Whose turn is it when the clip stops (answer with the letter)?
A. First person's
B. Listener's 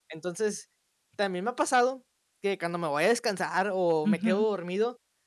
A